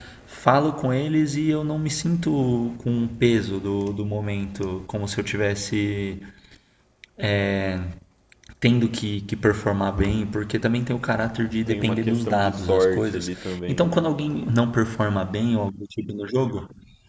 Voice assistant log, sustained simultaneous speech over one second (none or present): present